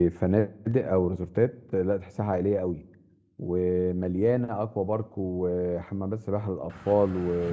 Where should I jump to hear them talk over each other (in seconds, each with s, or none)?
none